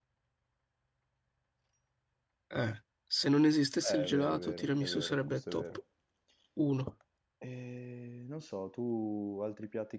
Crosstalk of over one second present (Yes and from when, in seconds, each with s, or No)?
Yes, from 3.8 s